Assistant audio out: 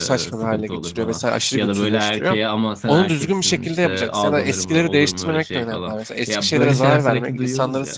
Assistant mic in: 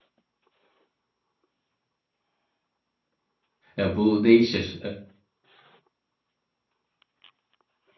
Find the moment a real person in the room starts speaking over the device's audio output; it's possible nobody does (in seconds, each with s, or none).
3.8 s